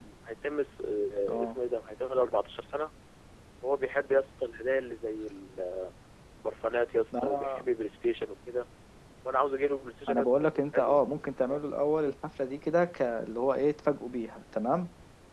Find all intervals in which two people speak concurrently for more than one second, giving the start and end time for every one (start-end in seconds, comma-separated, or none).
10.1-11.6